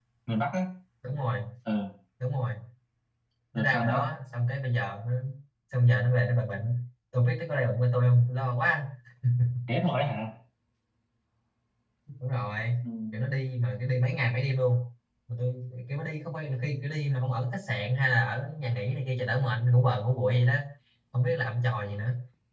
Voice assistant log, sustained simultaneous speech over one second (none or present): none